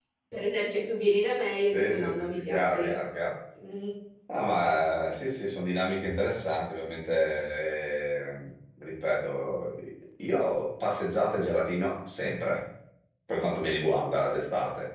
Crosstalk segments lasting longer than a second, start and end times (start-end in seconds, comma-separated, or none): 1.7-2.9